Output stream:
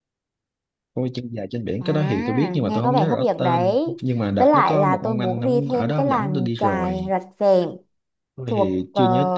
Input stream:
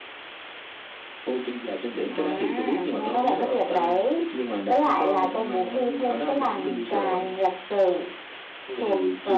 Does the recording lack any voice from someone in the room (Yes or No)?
Yes